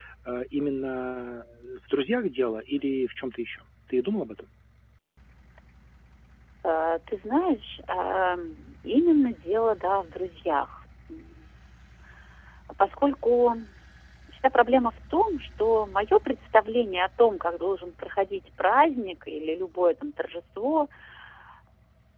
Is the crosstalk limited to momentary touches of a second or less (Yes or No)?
Yes